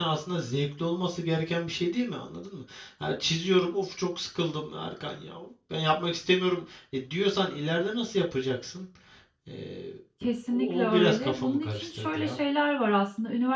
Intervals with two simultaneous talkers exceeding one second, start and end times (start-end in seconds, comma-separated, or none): 10.5-12.4